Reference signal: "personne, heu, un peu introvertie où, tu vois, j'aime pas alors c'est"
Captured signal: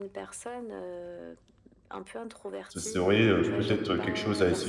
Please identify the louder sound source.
user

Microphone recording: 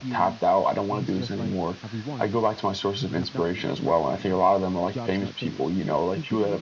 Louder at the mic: echo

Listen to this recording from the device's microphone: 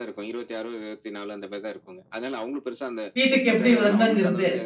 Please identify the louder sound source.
user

